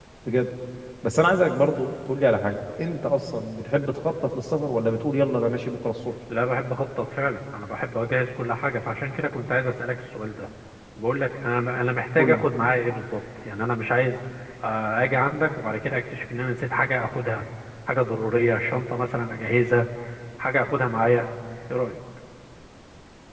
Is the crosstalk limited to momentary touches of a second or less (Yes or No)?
Yes